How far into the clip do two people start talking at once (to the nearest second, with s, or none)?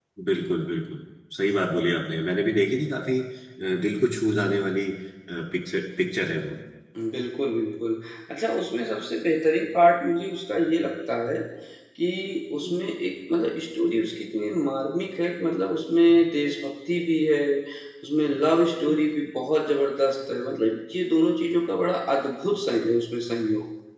none